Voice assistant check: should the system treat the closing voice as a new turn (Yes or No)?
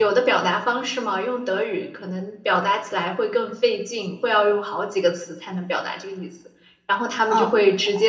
No